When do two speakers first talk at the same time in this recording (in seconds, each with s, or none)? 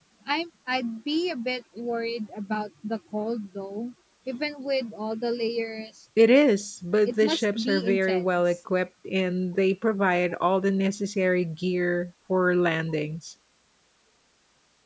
7.1 s